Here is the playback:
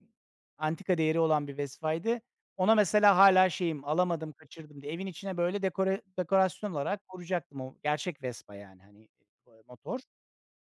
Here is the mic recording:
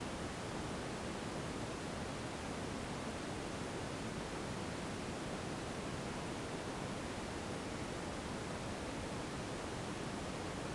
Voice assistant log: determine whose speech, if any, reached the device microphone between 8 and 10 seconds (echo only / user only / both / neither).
neither